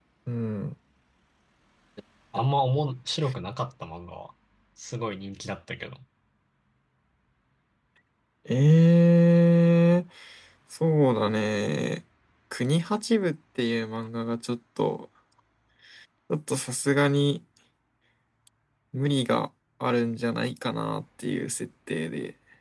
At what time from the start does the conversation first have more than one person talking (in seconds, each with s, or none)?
none